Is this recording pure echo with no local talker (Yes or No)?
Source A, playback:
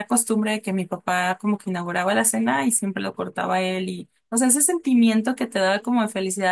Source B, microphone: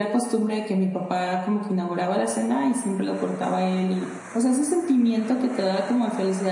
Yes